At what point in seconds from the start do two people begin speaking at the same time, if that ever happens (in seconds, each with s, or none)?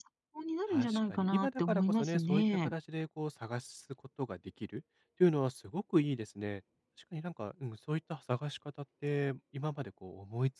0.7 s